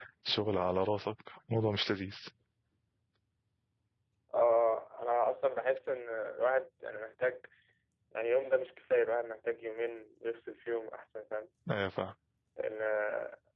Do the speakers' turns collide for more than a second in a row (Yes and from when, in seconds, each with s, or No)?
No